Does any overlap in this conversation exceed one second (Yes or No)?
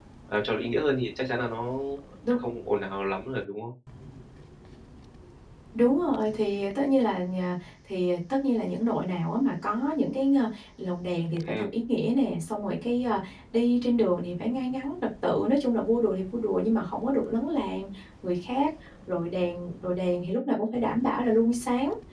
No